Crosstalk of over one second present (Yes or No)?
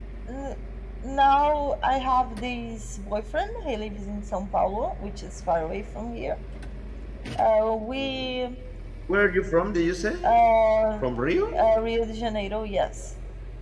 No